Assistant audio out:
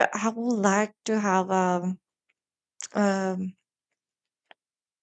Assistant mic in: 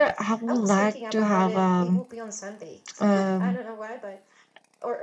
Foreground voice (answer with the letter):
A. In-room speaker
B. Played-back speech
B